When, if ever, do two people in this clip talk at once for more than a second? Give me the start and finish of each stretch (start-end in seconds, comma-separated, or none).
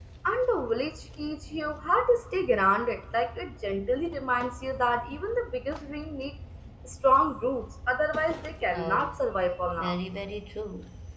none